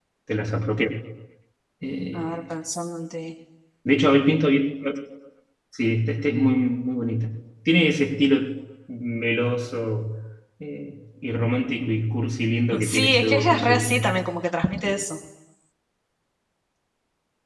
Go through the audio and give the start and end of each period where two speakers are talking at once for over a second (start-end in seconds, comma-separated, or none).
12.8-14.1